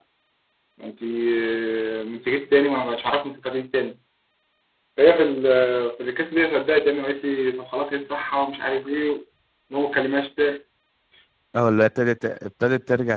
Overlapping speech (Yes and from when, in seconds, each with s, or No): No